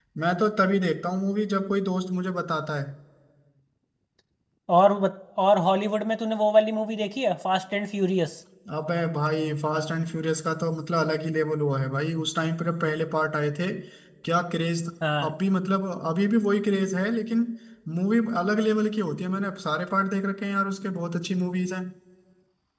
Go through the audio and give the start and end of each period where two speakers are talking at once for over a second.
none

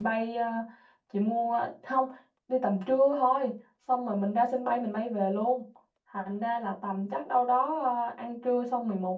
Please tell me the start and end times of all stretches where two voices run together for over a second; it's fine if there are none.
none

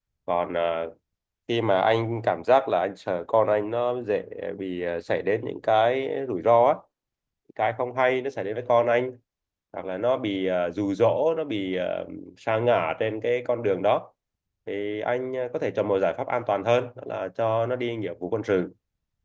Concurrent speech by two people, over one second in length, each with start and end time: none

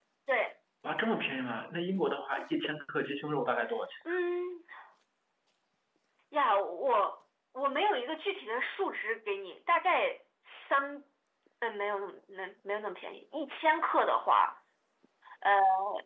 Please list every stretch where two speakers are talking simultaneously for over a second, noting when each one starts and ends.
none

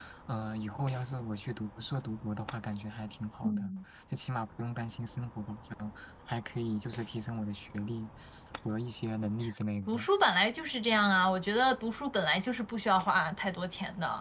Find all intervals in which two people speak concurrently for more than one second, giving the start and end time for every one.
none

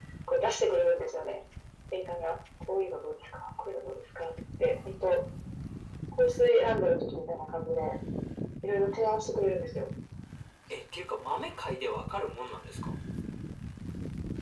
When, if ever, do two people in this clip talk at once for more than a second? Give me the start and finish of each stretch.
none

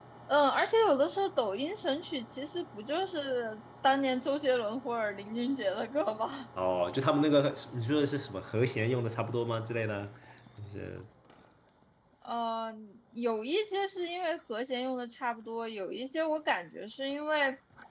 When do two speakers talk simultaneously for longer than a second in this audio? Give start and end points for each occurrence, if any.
none

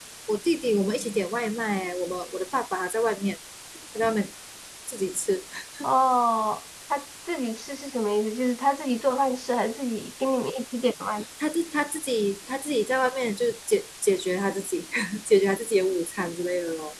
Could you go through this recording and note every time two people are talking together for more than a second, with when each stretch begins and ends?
none

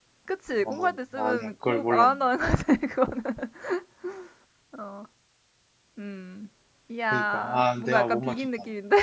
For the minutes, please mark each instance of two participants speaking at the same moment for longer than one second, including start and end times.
0.6-2.2, 7.1-8.5

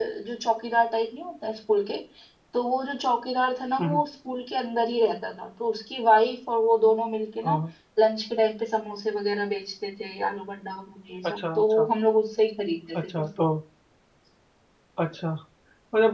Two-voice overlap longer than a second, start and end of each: none

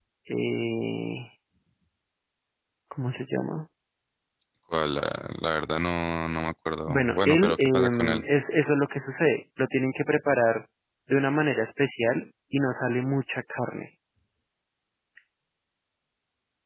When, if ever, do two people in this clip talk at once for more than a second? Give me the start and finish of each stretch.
6.9-8.2

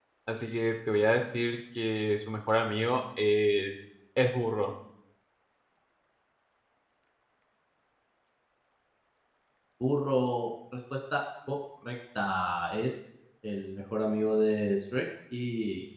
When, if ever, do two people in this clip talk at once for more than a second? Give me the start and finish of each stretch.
none

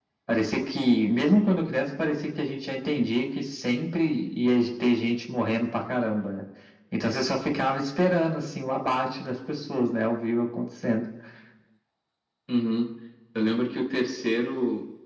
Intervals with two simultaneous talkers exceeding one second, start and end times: none

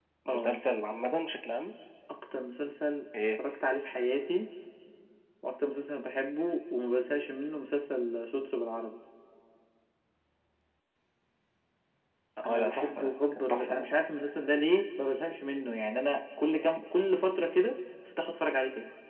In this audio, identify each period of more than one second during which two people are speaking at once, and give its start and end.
12.5-13.9

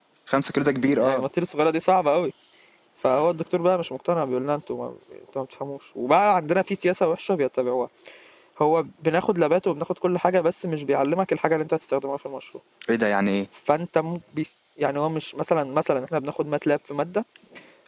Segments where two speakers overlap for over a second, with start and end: none

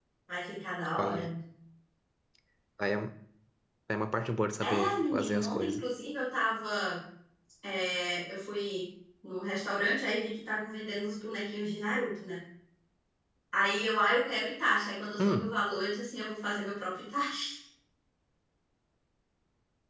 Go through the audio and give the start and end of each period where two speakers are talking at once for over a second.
4.6-5.8

